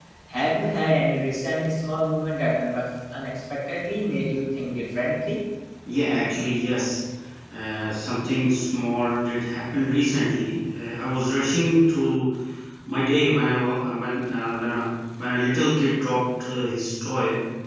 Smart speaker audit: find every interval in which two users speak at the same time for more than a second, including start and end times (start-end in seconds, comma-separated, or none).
none